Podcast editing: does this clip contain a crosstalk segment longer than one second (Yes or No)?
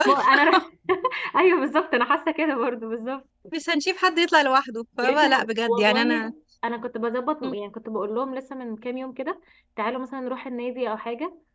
Yes